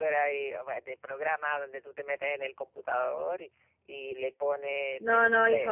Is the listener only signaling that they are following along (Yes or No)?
No